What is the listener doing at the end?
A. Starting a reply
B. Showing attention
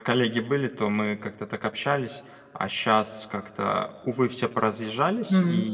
B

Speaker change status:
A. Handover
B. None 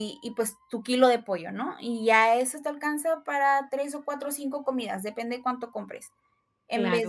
A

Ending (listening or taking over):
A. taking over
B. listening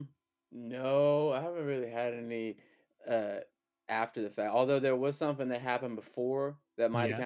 B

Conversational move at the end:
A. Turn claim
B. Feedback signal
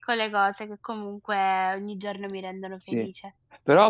A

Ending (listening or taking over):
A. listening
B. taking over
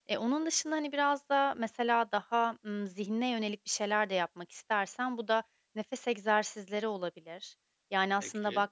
A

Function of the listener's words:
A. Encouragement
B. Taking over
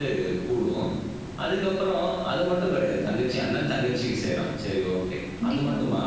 A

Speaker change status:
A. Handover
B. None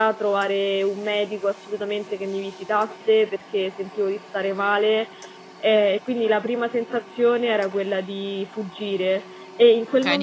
A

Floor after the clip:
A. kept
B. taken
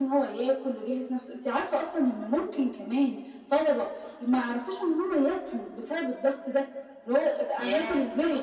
B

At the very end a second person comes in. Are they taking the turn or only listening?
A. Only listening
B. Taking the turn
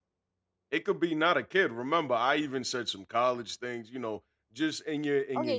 B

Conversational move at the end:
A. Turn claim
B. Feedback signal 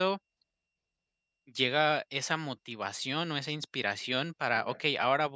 B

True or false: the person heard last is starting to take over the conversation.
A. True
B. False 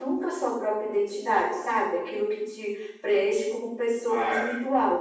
A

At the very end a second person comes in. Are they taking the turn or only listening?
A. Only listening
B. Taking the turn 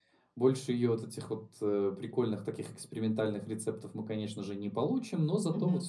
A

